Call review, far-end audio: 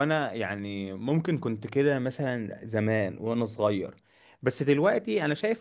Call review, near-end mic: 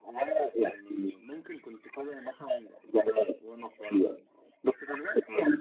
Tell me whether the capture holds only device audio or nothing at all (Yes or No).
Yes